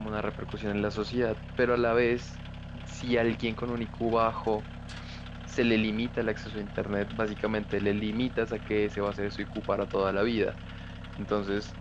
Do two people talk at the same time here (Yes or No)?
No